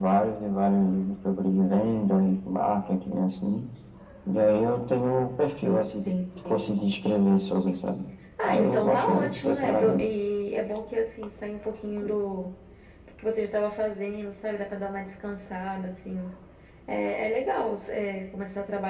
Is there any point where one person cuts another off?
Yes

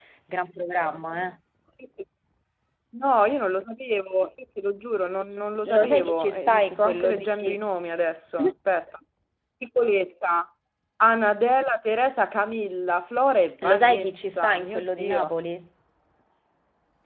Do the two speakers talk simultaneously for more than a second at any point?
Yes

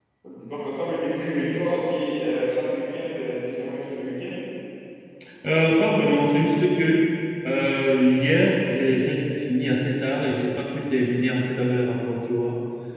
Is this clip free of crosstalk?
Yes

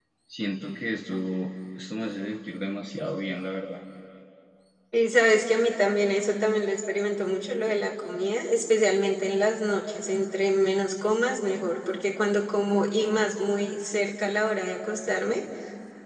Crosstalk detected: No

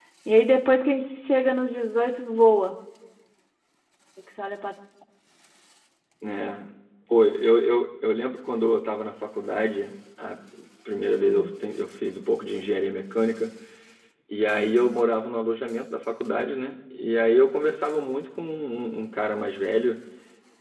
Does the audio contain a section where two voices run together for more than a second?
No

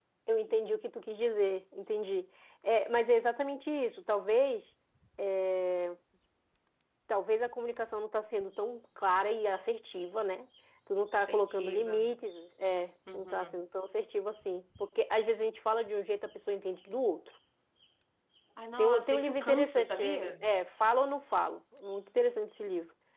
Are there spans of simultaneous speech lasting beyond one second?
Yes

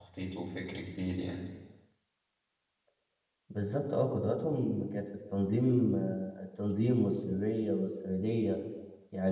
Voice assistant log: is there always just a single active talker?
Yes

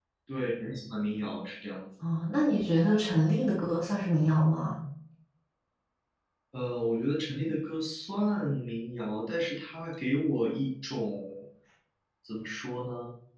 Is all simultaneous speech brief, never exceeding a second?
Yes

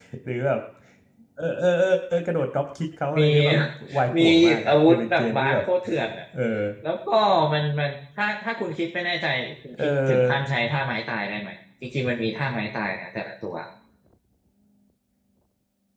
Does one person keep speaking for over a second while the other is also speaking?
Yes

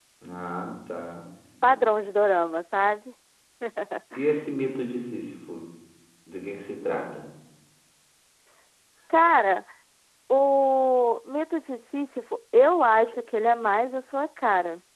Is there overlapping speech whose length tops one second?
No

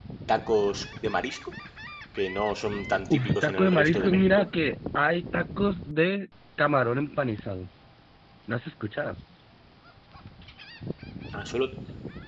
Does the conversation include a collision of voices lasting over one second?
Yes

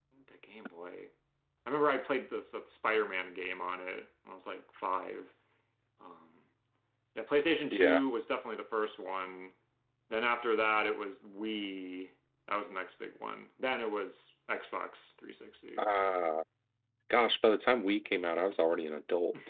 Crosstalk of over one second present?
No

